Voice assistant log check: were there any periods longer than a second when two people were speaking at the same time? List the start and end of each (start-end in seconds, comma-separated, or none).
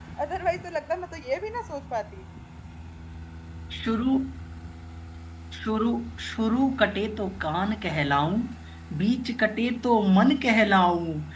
none